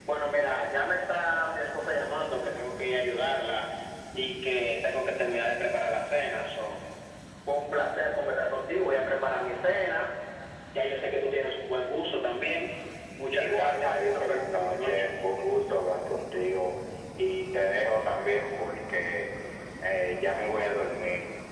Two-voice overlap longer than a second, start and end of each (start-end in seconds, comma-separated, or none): 13.3-15.1